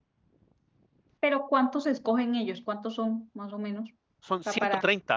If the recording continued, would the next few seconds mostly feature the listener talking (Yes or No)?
Yes